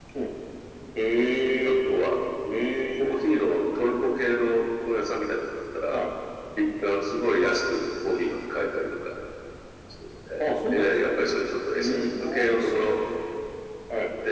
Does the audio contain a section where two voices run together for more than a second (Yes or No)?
Yes